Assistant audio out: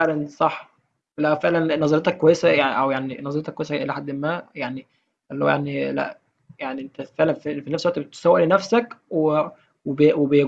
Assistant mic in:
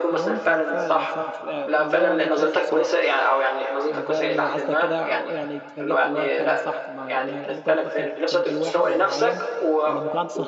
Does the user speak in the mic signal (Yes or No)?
Yes